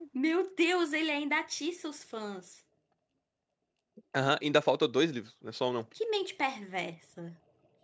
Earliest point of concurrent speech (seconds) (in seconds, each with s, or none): none